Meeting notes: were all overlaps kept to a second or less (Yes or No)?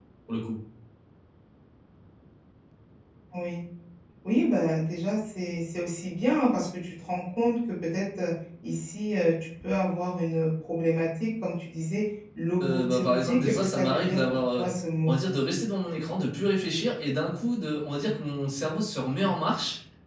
No